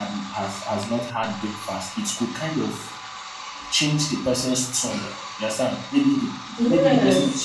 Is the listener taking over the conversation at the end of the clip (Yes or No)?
No